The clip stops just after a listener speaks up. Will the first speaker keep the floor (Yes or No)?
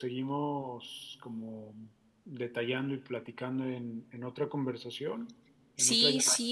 No